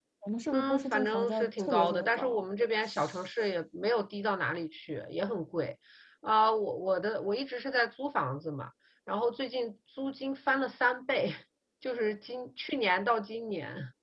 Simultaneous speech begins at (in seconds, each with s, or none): 0.5 s